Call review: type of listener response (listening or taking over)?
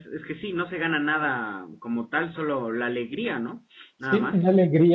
taking over